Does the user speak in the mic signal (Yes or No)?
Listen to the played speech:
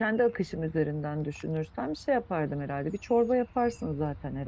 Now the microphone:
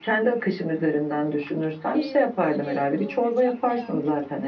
Yes